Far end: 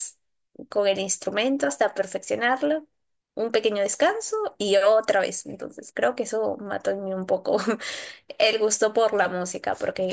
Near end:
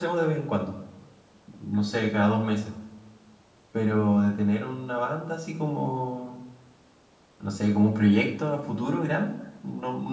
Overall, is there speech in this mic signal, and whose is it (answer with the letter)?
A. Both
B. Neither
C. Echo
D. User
D